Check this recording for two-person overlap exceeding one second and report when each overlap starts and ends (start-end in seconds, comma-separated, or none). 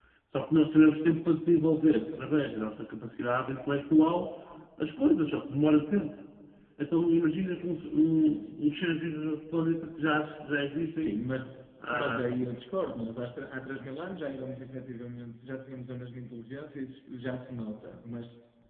none